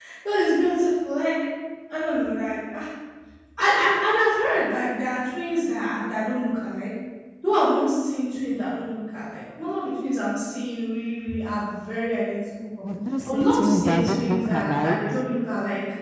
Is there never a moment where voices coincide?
No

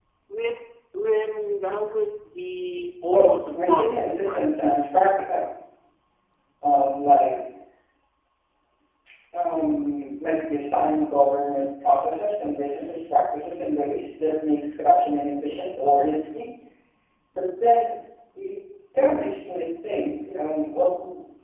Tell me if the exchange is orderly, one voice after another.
No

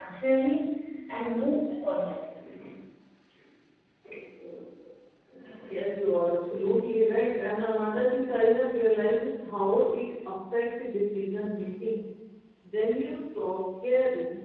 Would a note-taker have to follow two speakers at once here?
No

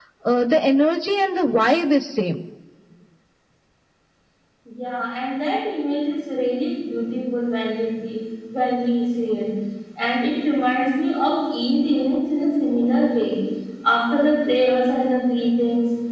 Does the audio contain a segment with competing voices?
No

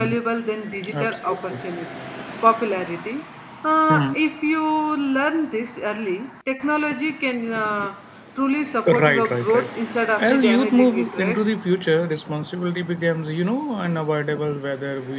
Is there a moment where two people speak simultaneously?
Yes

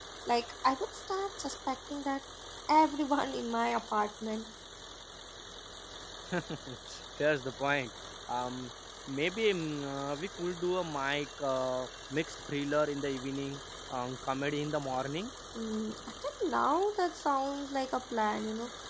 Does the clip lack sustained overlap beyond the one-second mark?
Yes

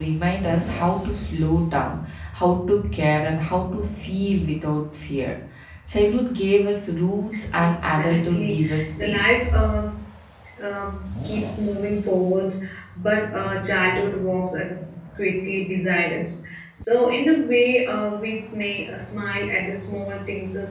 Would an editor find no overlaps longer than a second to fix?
No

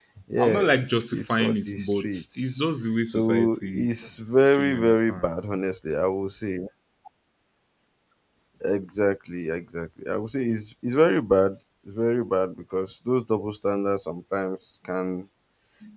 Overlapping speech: Yes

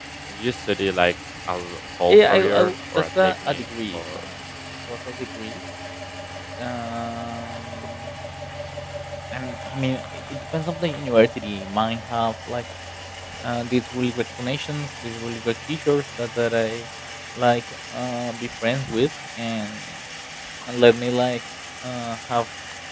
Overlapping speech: Yes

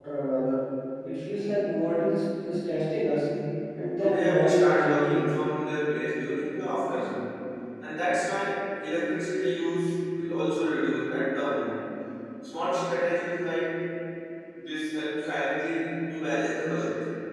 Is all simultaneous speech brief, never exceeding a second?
No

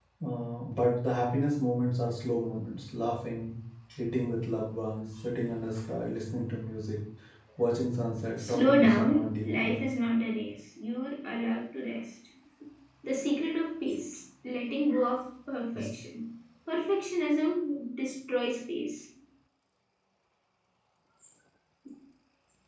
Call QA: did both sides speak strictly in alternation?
No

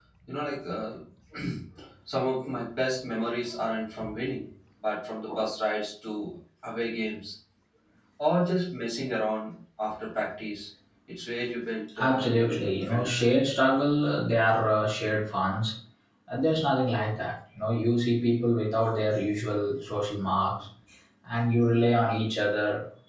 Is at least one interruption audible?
Yes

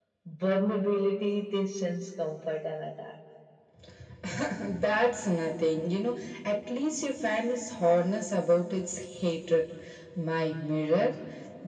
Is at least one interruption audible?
No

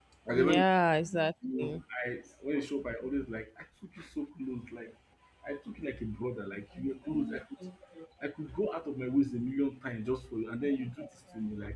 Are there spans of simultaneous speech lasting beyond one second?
No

